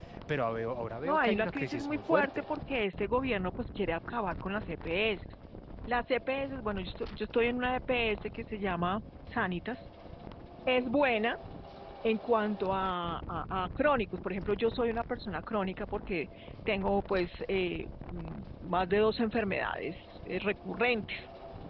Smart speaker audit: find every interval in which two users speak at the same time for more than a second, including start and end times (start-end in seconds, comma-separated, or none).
1.0-2.3